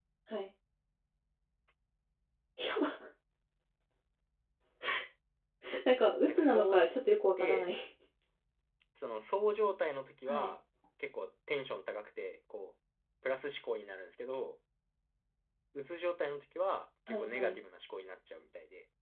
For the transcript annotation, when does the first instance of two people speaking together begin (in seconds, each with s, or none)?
6.2 s